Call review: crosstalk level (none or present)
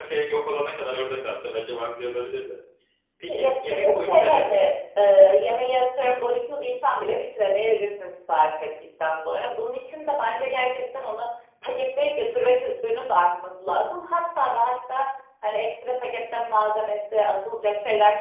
present